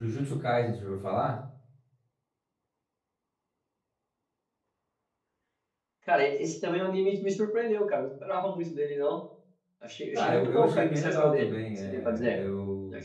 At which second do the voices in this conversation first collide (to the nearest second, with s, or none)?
10 s